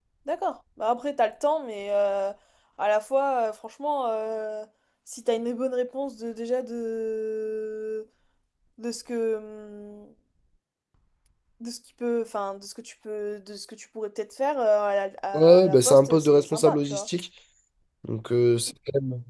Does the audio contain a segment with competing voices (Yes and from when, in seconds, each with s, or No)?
Yes, from 15.3 s